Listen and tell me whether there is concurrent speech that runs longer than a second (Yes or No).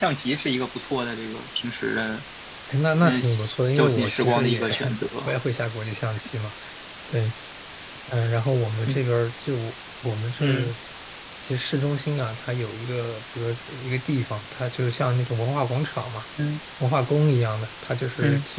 Yes